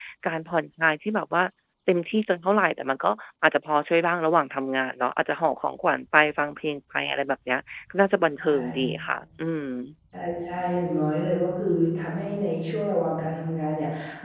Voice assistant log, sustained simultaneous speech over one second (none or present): none